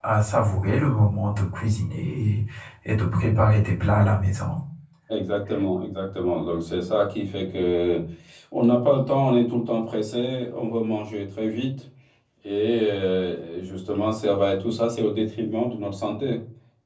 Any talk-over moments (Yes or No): No